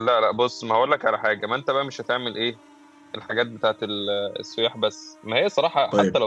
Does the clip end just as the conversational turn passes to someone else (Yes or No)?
No